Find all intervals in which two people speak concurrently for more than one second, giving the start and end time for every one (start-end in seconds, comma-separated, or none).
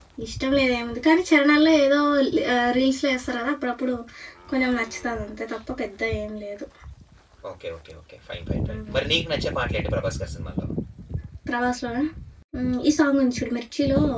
none